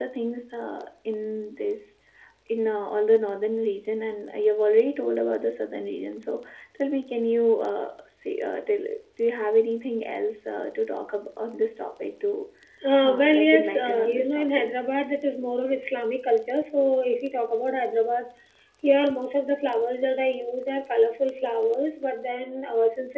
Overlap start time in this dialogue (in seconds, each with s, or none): 13.0 s